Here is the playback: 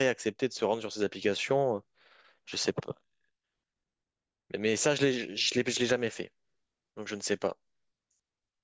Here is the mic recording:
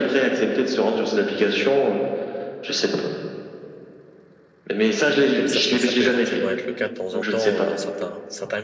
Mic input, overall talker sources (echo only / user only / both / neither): both